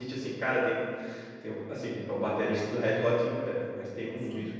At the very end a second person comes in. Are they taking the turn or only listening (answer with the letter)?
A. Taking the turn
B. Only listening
B